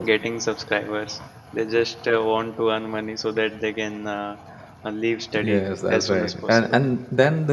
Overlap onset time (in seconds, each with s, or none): 5.4 s